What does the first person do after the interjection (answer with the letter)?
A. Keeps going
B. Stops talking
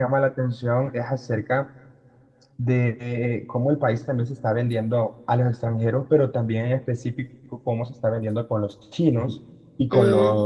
A